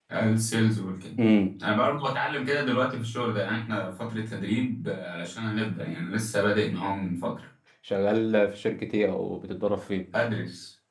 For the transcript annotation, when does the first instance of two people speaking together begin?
none

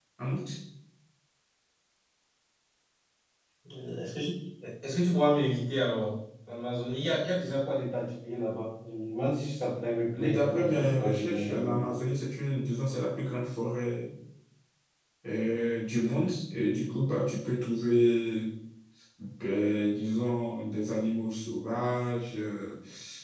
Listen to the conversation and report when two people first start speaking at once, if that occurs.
10.2 s

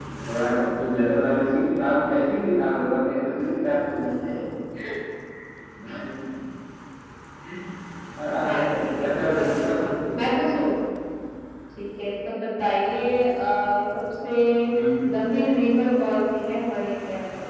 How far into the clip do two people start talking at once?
8.4 s

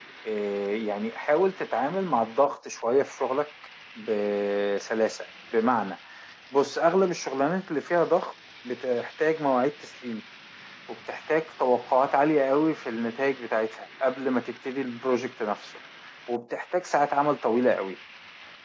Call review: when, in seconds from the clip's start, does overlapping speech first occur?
none

